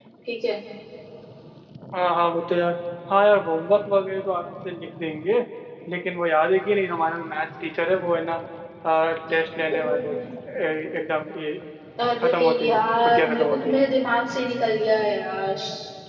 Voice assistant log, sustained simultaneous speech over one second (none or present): present